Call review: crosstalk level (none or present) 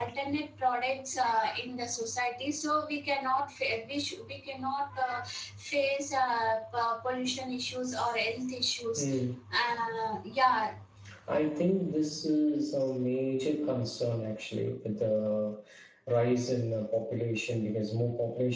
none